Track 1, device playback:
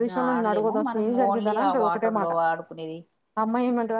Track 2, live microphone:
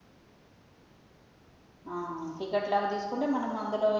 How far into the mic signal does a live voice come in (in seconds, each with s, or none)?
1.9 s